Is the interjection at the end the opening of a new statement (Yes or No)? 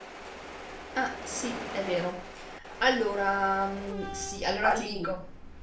No